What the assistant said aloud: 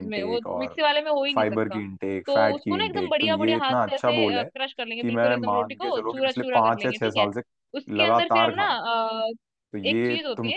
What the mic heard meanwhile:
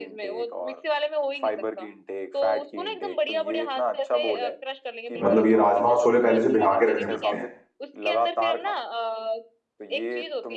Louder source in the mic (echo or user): user